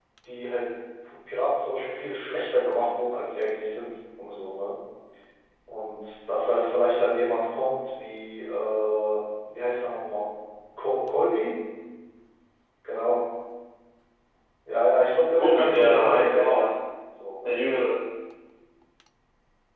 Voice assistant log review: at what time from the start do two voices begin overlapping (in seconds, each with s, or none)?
15.3 s